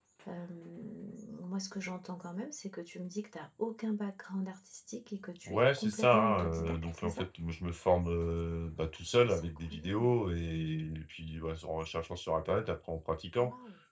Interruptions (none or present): present